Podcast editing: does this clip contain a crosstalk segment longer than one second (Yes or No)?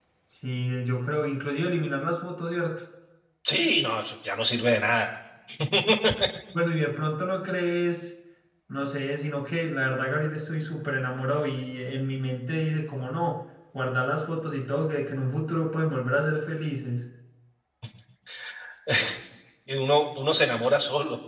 No